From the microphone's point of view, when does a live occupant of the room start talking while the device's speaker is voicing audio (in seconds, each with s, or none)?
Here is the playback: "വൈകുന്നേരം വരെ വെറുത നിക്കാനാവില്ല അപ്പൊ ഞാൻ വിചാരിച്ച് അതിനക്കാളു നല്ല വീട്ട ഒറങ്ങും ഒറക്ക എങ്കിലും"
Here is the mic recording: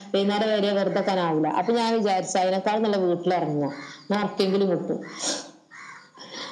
none